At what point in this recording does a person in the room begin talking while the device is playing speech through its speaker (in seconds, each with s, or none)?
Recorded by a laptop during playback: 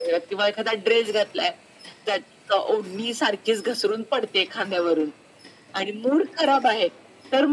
none